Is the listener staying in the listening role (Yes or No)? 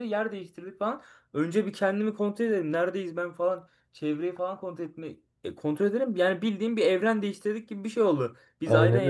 Yes